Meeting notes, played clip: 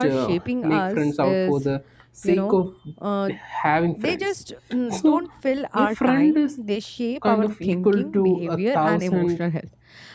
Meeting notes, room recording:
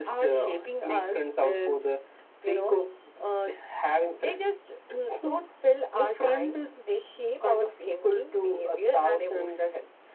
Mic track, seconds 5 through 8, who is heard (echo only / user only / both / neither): echo only